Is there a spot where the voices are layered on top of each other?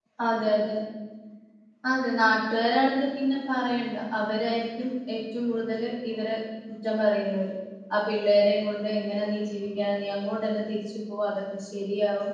No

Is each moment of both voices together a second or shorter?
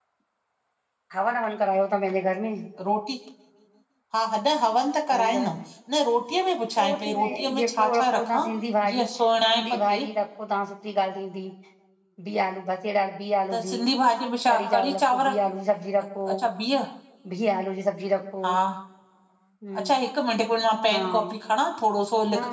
No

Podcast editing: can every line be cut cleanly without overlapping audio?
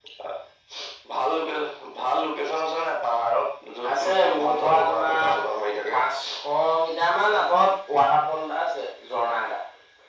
No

